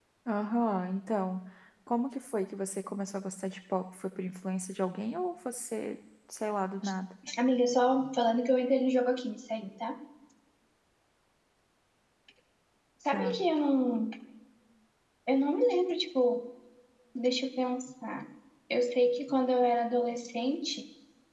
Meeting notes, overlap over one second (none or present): none